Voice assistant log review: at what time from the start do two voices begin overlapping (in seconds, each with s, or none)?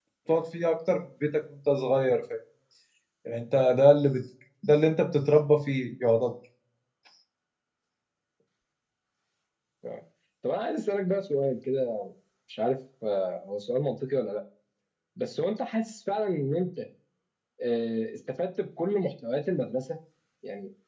none